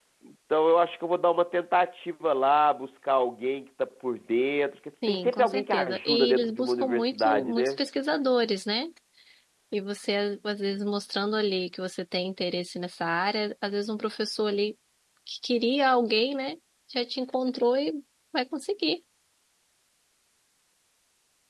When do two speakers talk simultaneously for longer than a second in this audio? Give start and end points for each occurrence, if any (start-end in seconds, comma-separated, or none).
5.1-7.8